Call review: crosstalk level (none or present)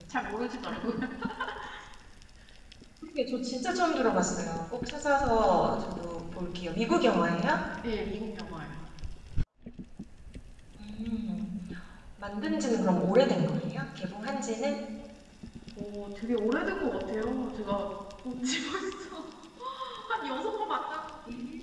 none